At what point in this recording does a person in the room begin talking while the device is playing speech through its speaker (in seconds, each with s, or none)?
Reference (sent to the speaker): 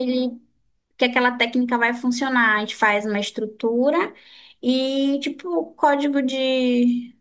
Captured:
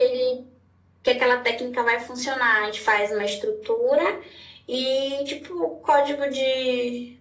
none